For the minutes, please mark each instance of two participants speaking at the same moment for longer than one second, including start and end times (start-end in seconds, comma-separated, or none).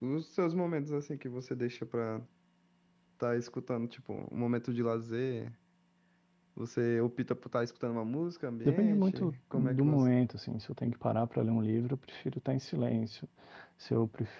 8.7-10.1